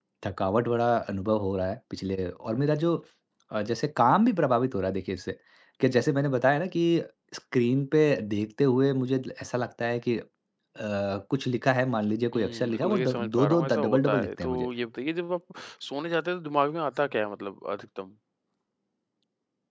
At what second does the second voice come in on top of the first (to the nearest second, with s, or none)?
12 s